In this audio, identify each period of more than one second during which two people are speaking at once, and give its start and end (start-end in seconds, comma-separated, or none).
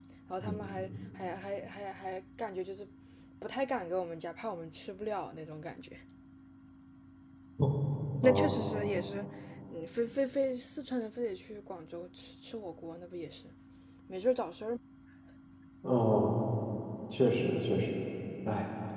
none